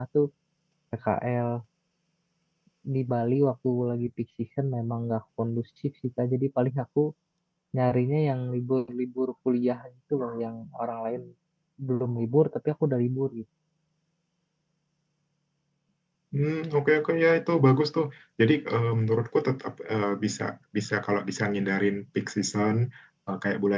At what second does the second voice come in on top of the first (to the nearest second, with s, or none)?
none